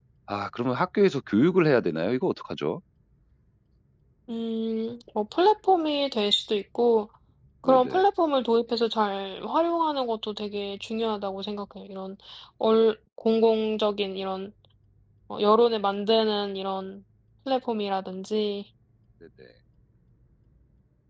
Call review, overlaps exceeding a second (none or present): none